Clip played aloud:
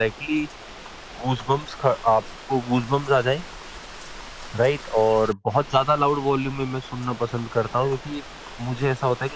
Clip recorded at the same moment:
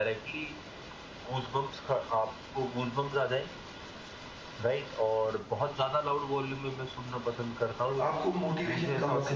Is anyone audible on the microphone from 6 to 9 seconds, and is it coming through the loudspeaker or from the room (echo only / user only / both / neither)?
both